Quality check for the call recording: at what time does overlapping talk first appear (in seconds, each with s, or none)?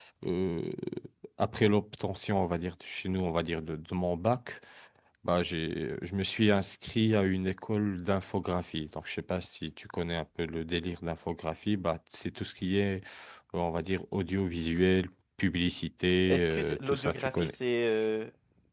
16.3 s